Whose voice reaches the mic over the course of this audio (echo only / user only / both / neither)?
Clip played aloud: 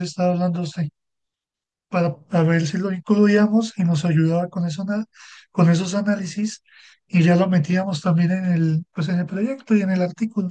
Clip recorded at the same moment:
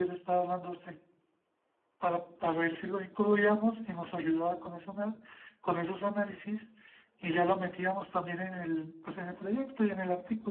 echo only